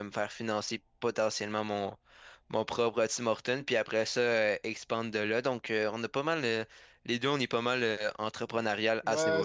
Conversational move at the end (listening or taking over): taking over